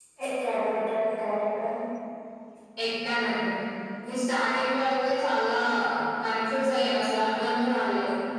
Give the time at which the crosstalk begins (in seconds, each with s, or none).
none